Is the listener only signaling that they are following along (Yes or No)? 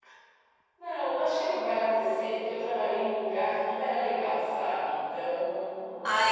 No